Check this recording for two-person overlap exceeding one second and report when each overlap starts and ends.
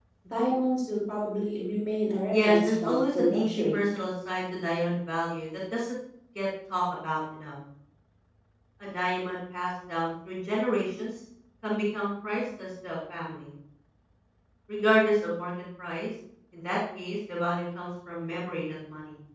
2.3-3.8

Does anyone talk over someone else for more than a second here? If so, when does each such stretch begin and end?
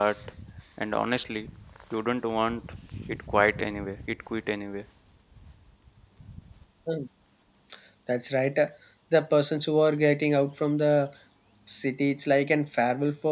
none

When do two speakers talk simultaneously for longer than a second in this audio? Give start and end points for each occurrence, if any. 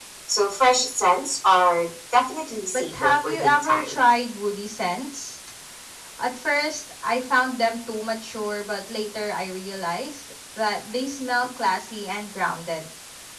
2.7-4.0

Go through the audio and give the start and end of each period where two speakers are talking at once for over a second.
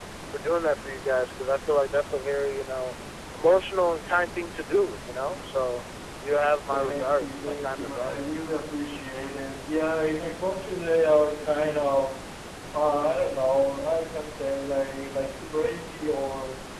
6.7-8.2

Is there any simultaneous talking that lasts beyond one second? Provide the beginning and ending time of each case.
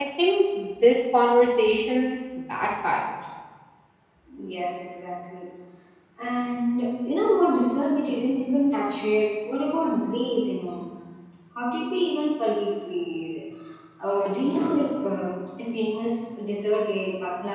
none

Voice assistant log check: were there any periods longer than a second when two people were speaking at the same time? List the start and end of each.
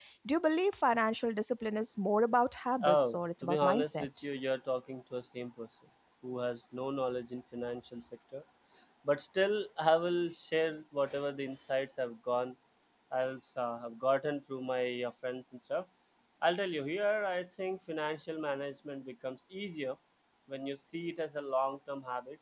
2.8-4.1

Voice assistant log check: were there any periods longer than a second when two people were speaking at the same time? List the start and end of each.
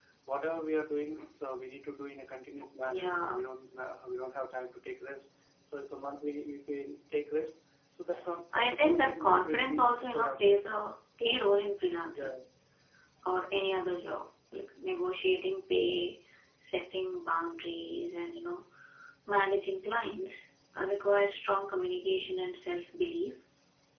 8.6-10.5

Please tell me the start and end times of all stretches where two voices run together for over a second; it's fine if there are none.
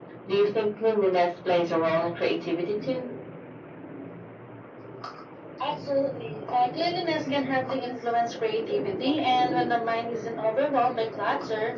none

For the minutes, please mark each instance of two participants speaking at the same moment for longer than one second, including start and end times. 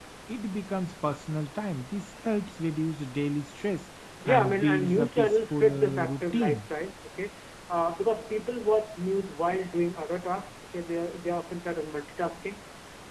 4.2-6.6

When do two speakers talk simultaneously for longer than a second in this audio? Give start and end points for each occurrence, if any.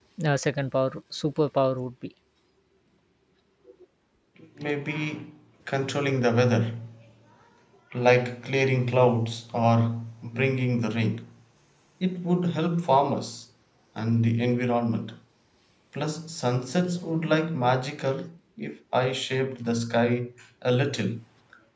none

